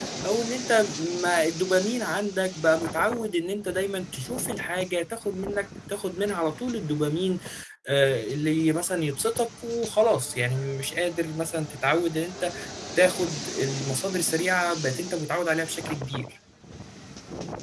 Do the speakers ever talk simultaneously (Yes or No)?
No